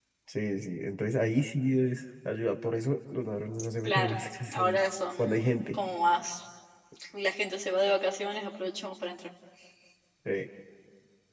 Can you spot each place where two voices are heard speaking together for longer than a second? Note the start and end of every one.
4.5-5.8

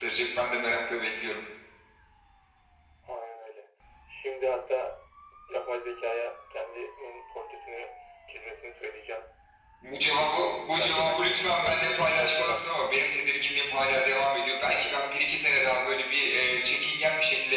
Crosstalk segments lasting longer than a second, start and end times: 10.8-12.7

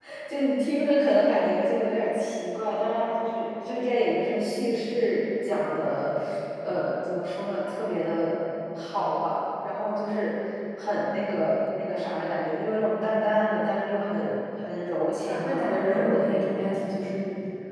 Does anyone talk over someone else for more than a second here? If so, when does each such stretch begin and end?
15.3-17.1

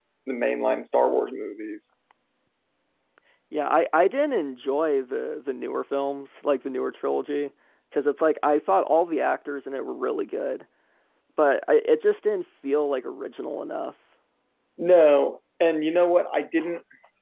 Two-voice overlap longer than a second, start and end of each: none

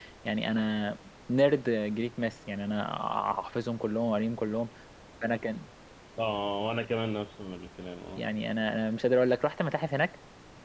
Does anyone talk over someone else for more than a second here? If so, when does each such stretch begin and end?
none

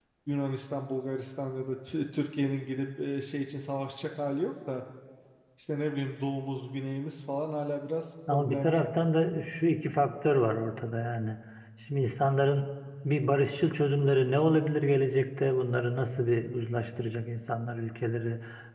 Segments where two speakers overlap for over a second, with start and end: none

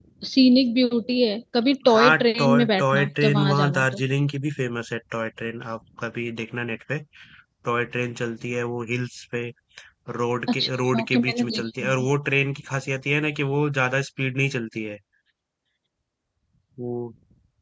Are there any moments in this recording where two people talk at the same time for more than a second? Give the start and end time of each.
1.9-4.0, 10.5-12.1

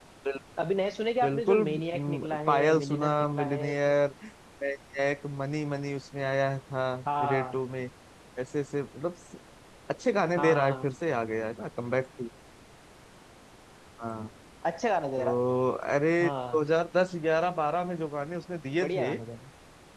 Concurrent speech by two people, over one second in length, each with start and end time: 1.2-3.9

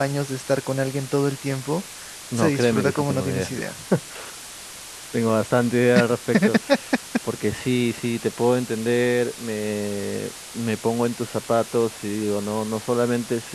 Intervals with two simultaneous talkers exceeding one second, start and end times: 2.4-3.7

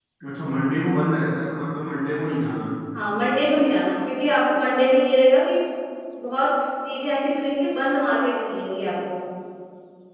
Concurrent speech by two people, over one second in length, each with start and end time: none

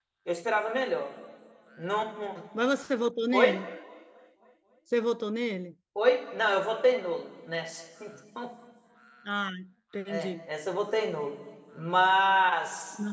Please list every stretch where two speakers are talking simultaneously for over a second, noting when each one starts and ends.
none

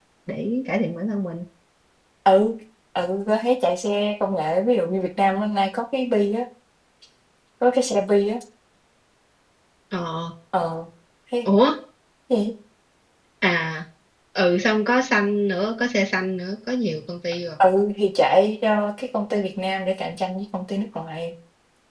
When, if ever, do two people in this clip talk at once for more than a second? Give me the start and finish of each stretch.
none

